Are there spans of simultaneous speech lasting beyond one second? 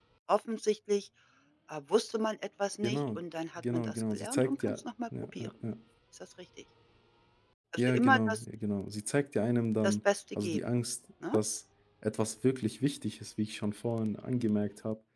Yes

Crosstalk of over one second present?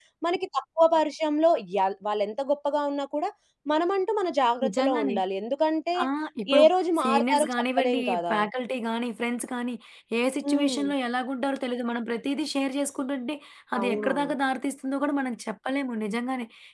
Yes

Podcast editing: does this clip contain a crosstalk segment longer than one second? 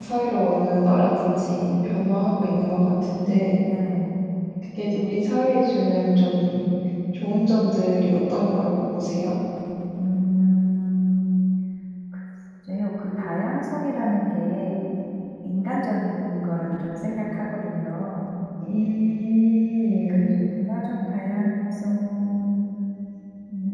No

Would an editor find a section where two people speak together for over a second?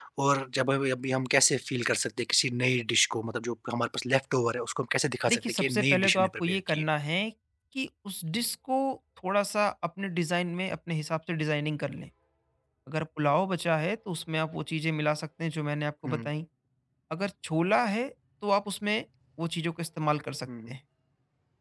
Yes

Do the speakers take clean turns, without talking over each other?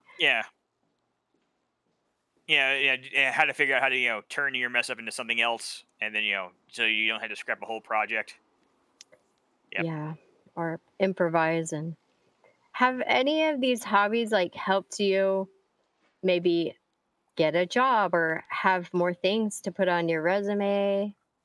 Yes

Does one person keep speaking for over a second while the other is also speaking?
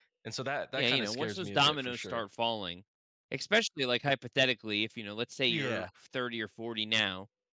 Yes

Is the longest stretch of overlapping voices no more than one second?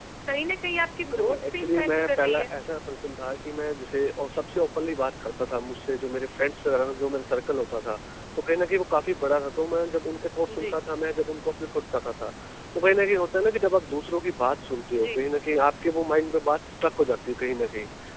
No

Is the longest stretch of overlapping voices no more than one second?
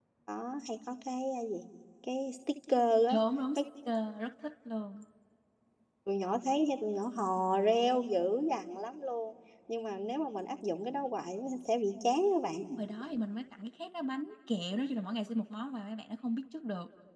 Yes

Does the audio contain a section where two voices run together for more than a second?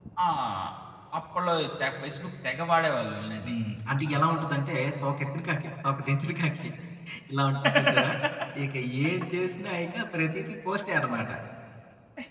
No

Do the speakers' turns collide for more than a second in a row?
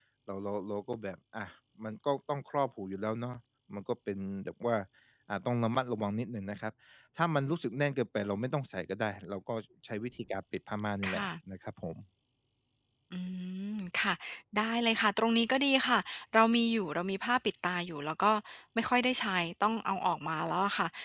No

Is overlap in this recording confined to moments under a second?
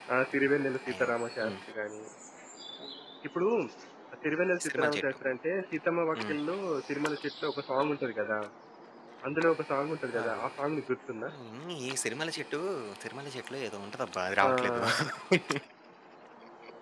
Yes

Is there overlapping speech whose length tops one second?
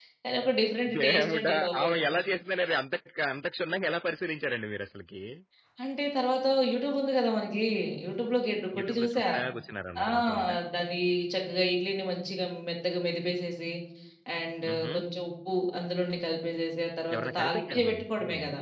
Yes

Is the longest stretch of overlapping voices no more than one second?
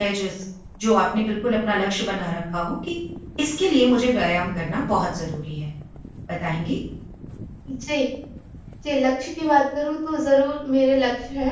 Yes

